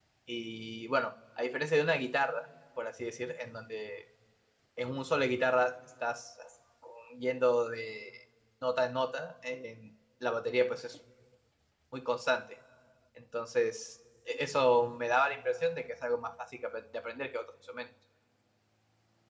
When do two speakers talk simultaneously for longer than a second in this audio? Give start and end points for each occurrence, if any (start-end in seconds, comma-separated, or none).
none